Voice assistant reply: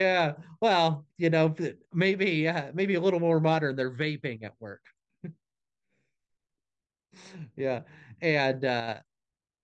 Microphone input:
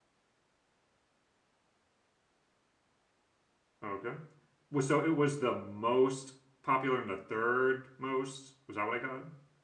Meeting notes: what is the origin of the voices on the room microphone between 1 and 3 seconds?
neither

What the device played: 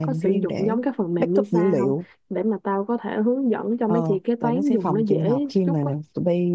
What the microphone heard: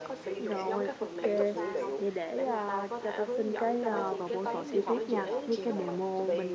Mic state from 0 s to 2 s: both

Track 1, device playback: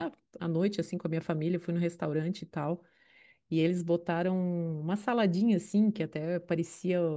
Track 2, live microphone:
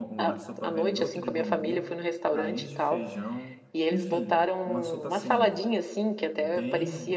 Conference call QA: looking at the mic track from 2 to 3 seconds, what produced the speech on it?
both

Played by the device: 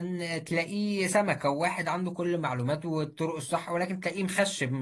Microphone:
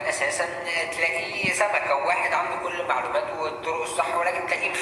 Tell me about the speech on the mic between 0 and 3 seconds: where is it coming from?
echo only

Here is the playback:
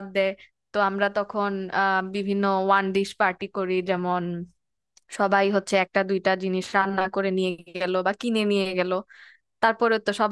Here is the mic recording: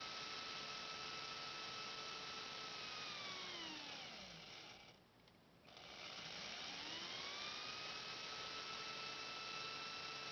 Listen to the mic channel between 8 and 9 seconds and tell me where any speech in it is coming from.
neither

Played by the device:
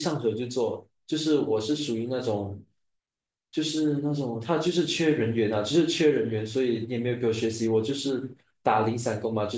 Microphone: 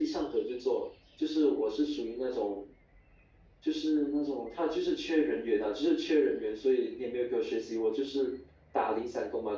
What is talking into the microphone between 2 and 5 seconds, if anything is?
echo only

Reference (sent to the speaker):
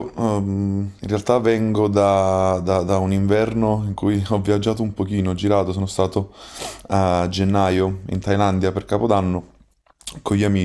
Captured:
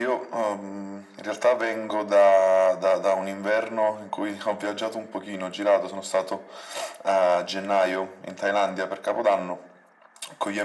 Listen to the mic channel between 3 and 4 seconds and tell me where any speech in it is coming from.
echo only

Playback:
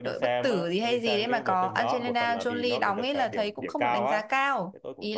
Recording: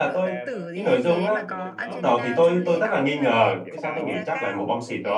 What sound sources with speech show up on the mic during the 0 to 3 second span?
both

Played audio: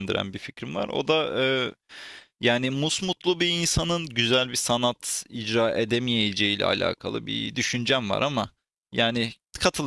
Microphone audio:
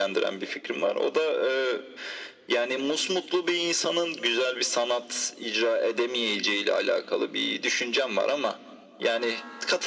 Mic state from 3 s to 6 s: echo only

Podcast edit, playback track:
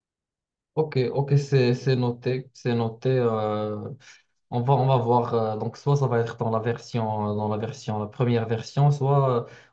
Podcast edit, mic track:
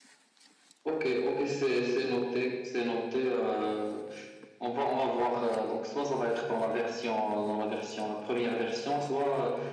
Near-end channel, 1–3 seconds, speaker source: echo only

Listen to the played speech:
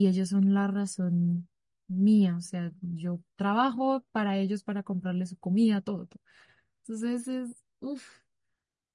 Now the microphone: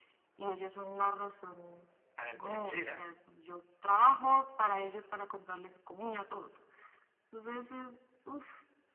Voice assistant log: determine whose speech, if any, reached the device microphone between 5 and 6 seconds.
echo only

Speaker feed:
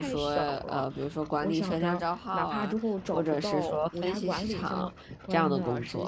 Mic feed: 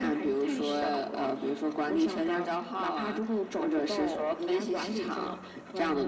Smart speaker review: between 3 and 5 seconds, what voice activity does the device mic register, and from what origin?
echo only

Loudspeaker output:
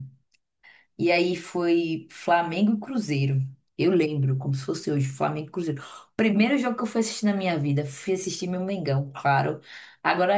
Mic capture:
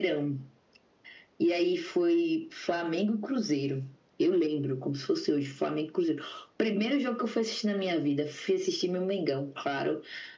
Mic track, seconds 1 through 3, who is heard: echo only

